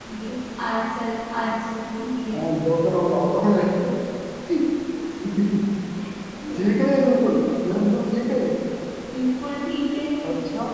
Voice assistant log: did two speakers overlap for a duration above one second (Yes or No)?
Yes